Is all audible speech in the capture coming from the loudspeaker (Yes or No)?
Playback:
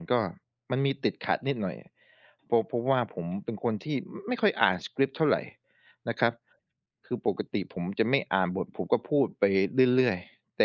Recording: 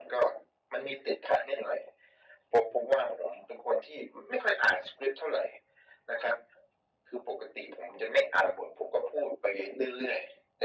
Yes